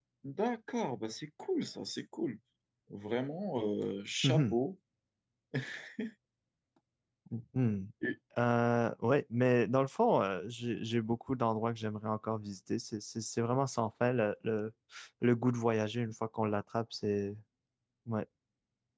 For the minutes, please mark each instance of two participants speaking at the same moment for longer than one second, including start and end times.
none

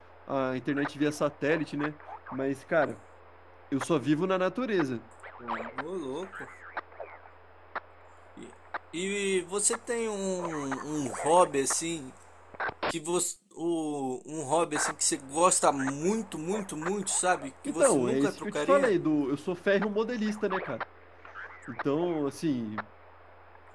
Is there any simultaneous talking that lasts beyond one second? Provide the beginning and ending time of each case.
17.6-18.9

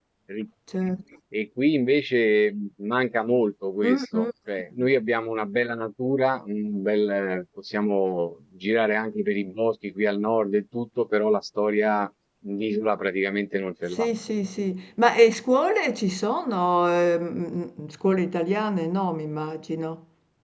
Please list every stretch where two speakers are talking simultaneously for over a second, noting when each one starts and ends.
none

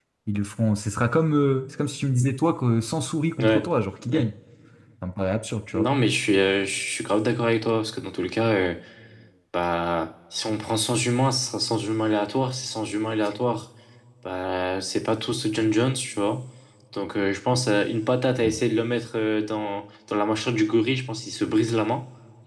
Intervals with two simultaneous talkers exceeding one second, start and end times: none

